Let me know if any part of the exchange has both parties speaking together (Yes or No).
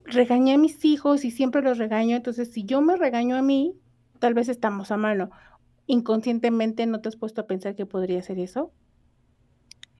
No